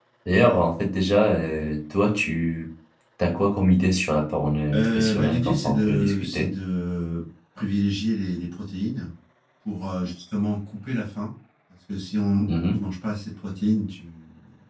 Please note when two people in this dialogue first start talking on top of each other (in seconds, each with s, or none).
4.7 s